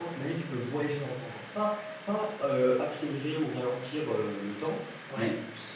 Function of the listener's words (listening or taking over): listening